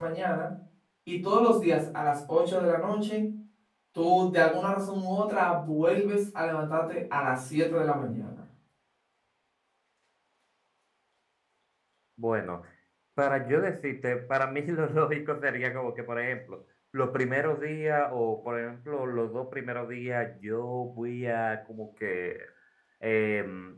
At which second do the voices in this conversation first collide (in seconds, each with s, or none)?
none